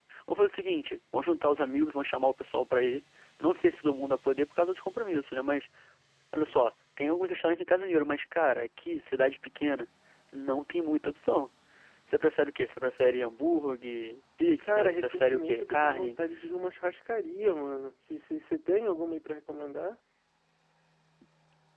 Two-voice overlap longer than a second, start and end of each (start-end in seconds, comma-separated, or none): 14.6-16.2